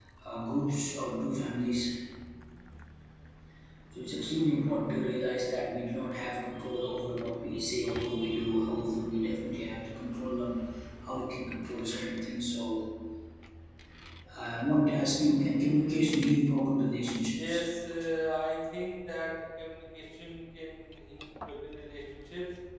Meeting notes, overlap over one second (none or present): none